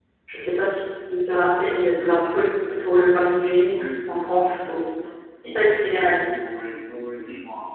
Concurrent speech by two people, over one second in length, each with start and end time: none

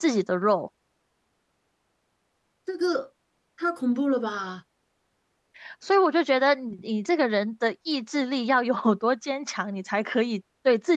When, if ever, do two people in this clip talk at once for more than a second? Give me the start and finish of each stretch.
none

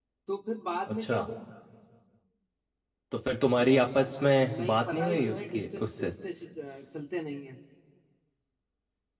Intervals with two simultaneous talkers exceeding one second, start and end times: 4.6-6.1

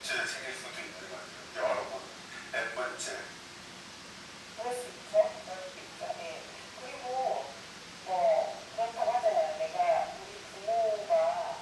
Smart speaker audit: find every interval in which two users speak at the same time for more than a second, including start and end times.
none

